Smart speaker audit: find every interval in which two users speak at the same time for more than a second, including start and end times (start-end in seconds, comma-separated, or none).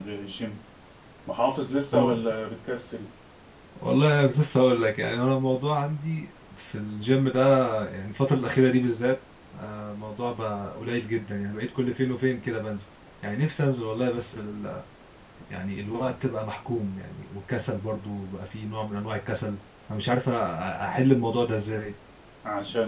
none